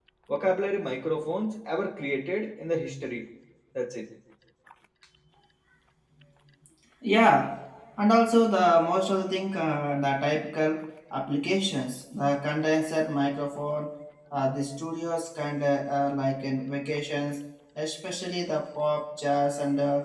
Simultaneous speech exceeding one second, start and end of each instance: none

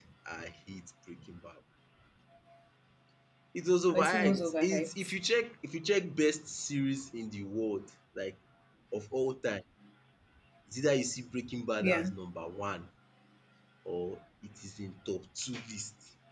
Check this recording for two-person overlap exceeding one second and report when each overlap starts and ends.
3.9-5.1

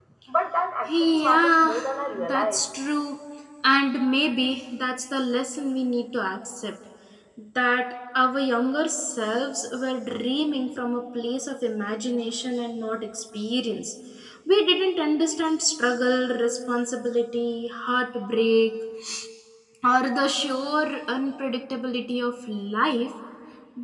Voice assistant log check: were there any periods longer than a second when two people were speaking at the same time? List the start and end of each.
0.9-2.6

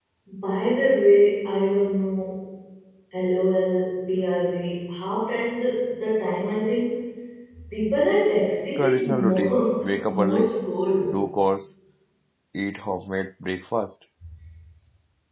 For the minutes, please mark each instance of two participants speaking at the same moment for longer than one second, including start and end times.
8.8-10.5

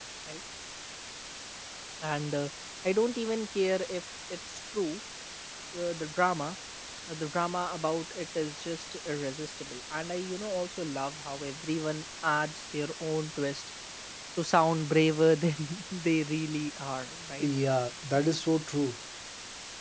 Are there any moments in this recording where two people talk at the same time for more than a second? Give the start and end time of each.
none

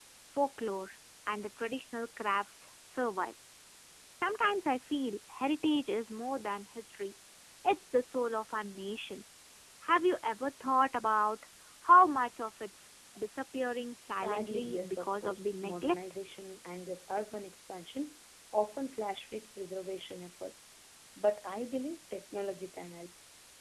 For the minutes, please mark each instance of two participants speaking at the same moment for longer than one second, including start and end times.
14.1-15.9

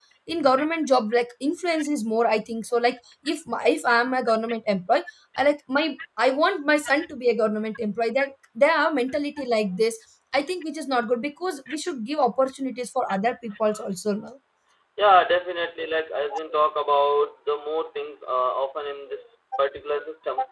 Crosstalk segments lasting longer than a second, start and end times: none

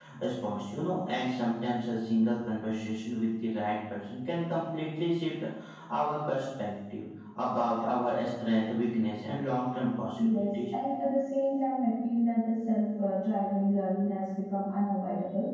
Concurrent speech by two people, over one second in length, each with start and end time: none

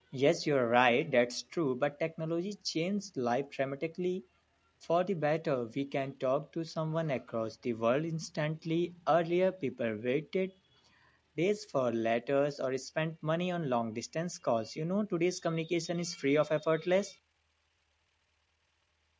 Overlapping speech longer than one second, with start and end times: none

